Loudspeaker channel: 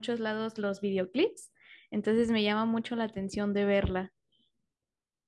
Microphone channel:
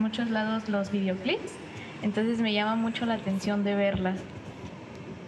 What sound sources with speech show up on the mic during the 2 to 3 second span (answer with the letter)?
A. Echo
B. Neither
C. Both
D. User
A